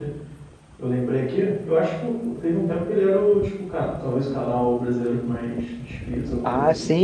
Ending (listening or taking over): taking over